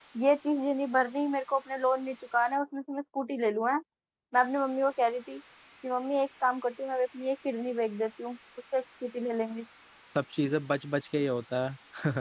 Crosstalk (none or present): none